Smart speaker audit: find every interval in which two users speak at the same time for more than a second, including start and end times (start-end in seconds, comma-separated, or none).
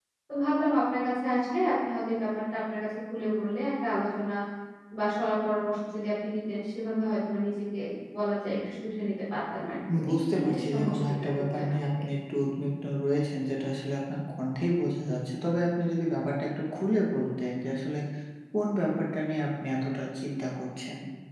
10.1-11.7